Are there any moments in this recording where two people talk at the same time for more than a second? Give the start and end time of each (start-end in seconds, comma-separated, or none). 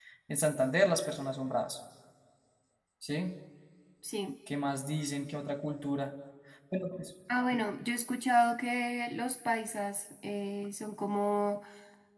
none